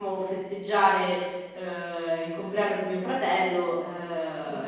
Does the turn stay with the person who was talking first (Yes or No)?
Yes